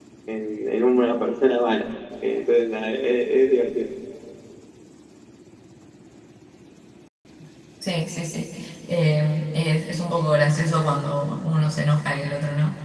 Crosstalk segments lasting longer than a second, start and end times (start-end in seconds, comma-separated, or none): none